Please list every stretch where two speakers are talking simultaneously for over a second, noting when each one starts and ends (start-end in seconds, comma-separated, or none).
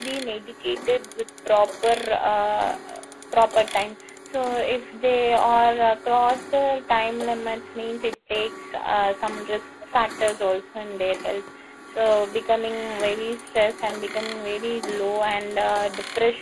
none